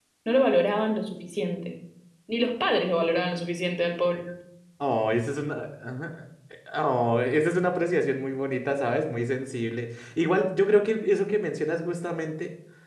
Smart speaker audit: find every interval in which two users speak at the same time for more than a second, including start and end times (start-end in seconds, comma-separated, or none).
none